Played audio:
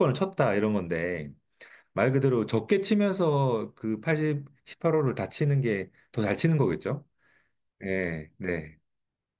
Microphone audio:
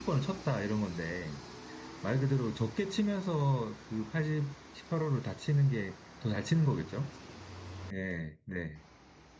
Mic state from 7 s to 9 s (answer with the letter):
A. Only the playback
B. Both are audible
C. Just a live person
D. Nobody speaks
A